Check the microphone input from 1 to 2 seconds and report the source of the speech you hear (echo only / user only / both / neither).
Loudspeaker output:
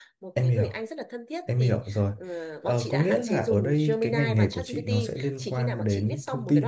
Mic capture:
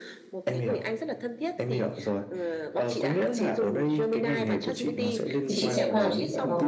echo only